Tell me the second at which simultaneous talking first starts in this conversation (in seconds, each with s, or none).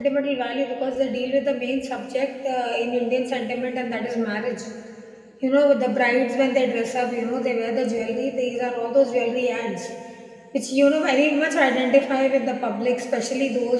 none